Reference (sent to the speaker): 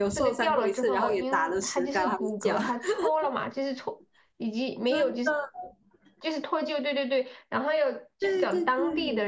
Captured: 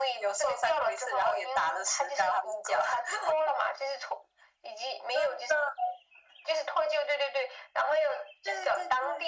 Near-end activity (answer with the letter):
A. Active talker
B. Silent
B